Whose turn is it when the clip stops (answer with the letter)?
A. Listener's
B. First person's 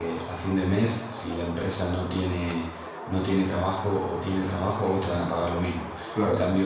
B